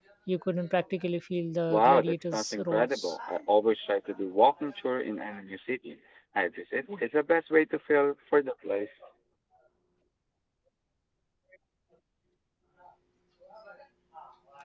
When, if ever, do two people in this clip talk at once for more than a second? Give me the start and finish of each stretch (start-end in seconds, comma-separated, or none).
1.7-3.2